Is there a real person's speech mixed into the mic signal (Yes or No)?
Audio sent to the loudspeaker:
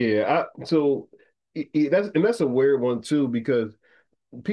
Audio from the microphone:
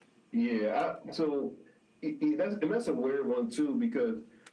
No